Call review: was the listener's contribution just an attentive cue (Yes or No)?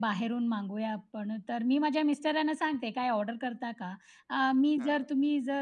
Yes